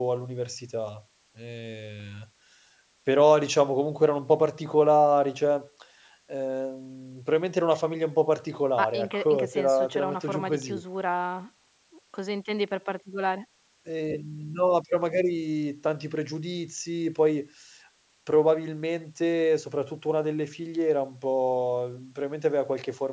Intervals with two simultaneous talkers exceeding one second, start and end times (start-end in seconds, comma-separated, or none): 8.8-10.8